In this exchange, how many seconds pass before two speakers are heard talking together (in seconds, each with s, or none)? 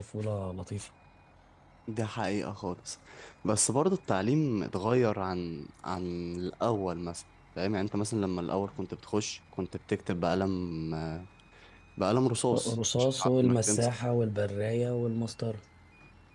12.5 s